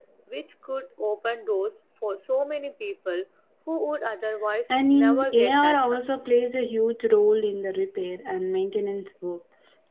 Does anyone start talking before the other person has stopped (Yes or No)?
Yes